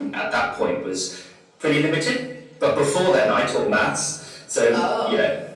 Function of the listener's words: listening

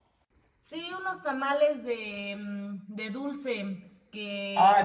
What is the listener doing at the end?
taking over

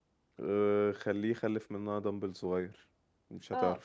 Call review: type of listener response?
taking over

